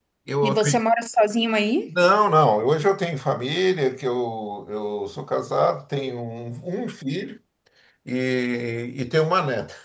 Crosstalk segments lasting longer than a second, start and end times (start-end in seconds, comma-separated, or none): none